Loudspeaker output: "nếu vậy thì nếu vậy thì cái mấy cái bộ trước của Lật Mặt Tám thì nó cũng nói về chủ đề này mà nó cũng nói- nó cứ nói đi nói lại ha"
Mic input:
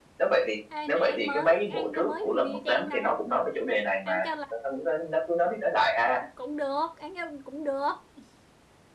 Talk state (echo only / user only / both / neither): both